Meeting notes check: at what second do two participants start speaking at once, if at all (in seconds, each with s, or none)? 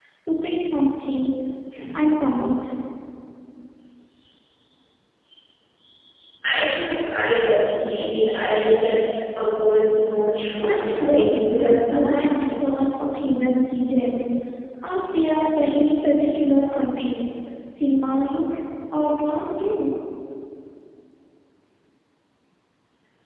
10.6 s